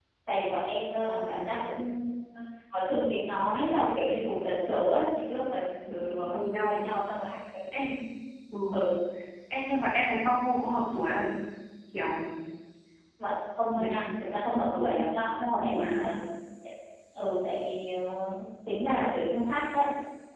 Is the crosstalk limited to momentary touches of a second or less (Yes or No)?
No